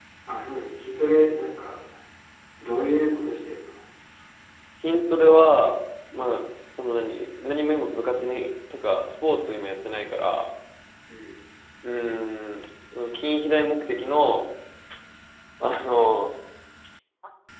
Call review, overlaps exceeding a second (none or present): none